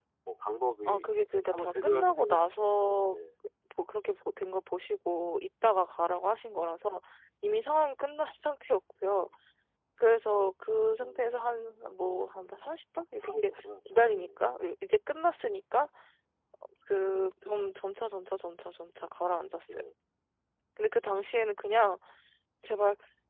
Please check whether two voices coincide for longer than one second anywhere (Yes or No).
Yes